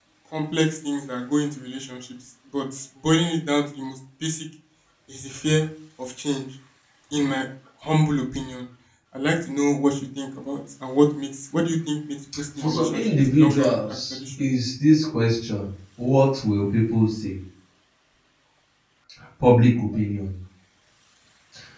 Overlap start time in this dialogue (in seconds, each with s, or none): 12.3 s